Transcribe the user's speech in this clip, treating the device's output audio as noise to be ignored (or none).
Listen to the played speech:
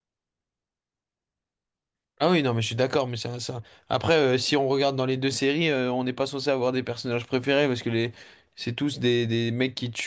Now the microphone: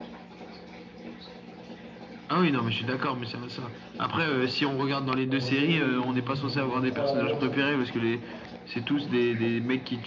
Non, mais Sully, il, il pense trop à la violence, lui.